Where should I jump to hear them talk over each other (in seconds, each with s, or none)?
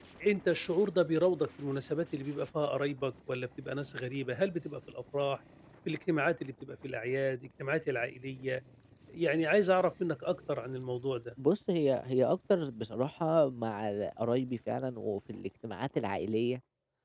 none